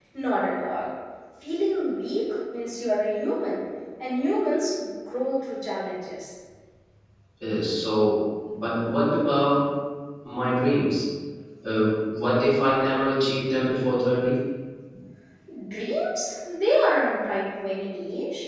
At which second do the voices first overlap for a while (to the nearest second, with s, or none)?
none